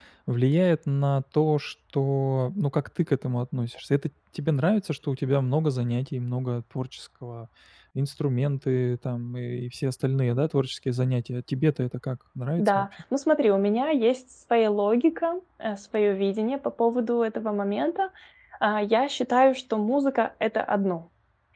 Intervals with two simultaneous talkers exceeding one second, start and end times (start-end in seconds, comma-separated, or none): none